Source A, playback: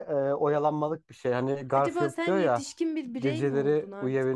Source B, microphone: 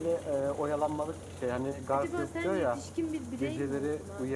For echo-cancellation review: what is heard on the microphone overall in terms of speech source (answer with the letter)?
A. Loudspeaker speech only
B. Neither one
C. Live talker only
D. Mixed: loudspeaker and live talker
A